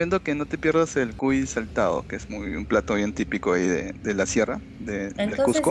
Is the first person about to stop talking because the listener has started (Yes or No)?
Yes